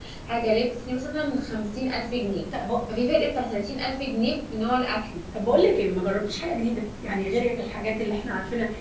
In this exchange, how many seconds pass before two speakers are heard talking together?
none

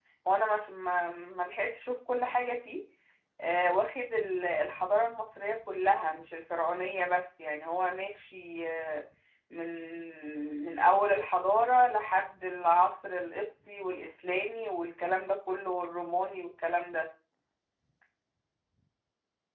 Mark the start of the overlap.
none

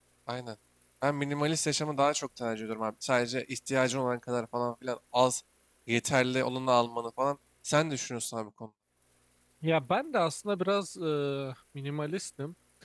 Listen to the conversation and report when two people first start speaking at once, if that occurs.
none

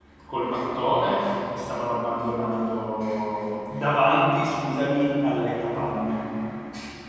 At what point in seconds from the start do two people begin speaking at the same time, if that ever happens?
none

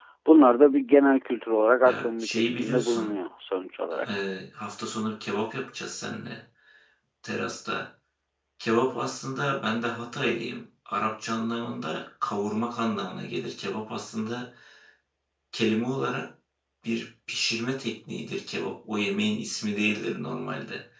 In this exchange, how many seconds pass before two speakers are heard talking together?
1.8 s

